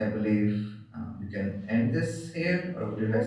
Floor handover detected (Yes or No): Yes